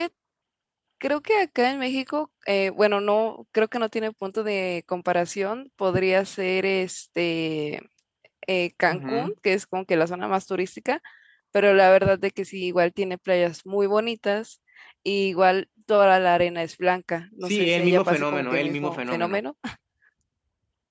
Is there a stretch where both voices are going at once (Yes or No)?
Yes